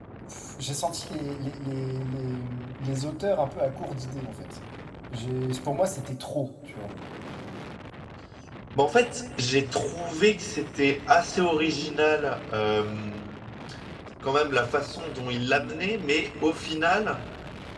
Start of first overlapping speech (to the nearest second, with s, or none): none